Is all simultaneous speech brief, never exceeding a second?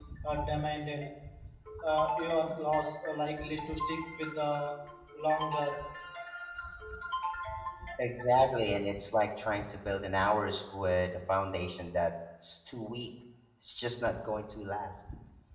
Yes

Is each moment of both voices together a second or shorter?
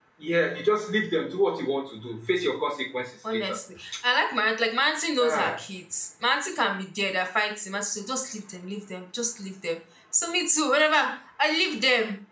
Yes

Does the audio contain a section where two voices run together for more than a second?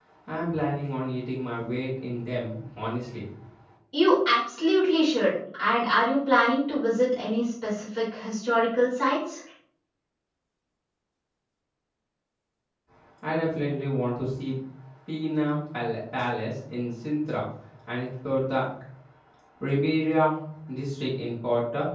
No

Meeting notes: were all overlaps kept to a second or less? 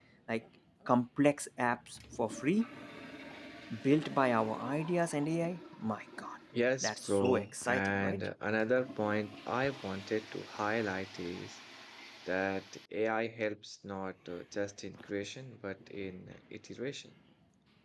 No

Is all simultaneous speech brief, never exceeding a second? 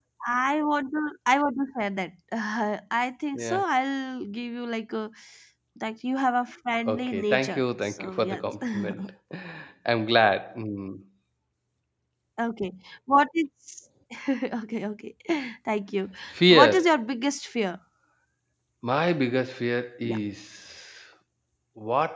No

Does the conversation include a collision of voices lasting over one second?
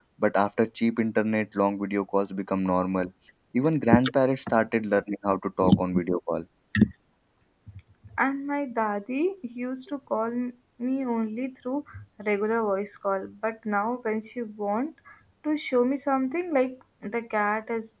No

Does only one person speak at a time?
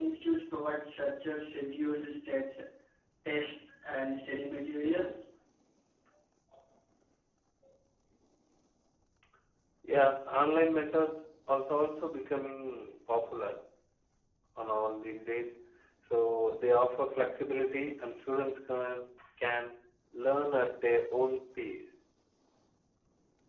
Yes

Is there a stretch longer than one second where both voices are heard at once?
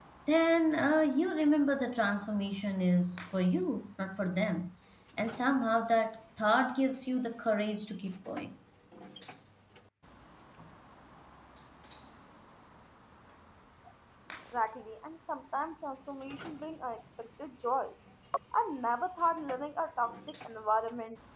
No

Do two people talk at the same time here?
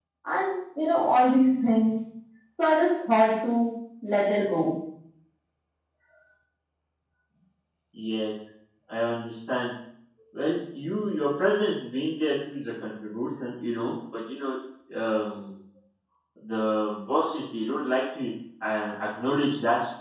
No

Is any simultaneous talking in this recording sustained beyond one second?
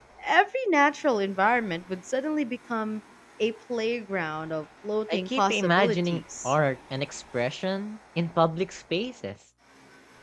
Yes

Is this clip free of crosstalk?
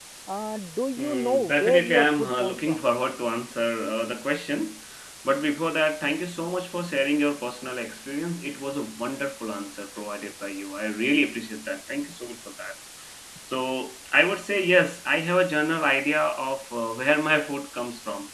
No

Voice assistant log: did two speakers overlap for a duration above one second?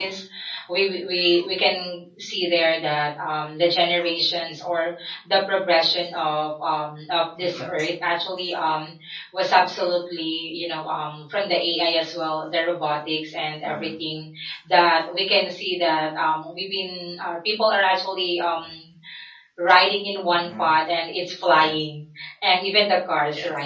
No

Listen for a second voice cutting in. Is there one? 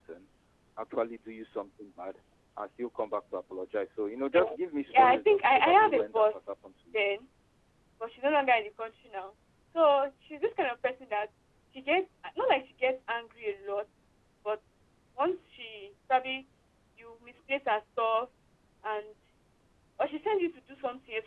Yes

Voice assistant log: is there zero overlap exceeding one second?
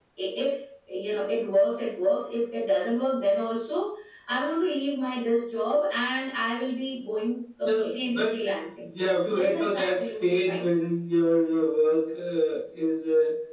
No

